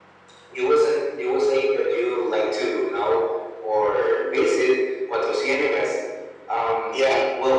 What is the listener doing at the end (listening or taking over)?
taking over